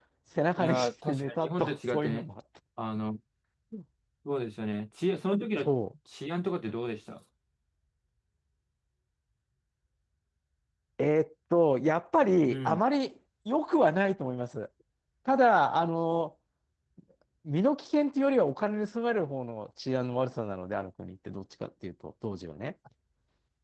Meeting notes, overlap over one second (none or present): present